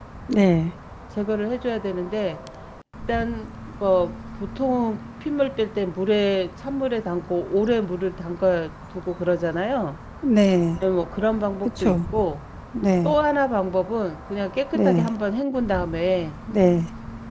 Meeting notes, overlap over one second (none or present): none